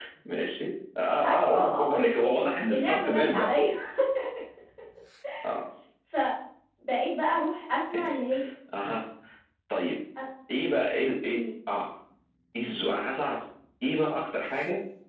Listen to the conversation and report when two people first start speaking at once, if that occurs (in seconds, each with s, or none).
1.2 s